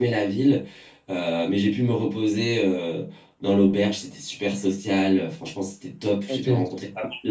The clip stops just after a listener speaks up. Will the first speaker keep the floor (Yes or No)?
Yes